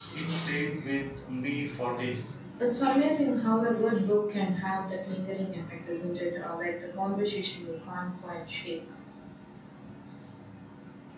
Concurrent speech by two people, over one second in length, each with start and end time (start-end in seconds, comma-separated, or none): none